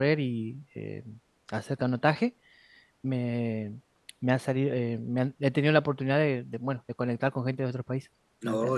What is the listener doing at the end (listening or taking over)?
taking over